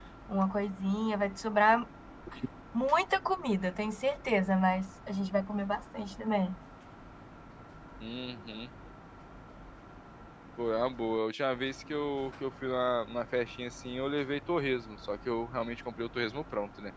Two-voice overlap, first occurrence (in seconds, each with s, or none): none